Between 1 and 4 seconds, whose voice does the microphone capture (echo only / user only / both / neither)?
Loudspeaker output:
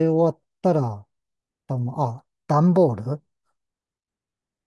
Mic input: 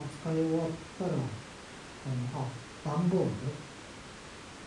echo only